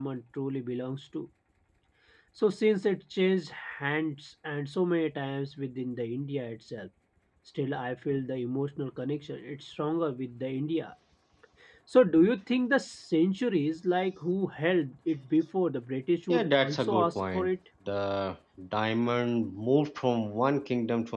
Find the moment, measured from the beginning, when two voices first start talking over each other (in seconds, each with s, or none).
16.3 s